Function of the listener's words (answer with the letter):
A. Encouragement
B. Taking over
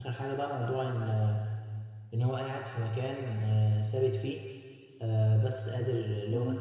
A